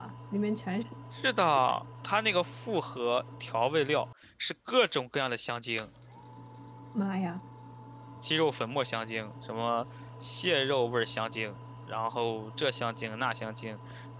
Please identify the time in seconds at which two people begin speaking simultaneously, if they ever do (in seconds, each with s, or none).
none